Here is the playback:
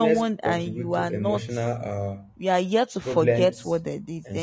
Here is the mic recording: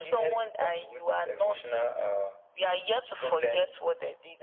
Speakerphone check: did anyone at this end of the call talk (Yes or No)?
No